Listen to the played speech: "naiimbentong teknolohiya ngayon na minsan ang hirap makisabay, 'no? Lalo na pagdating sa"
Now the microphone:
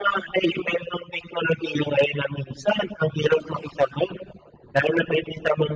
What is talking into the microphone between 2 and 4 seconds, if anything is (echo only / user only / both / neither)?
echo only